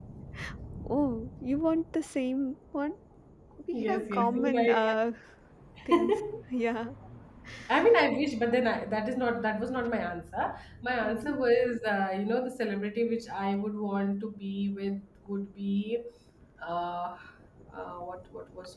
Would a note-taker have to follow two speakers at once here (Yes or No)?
Yes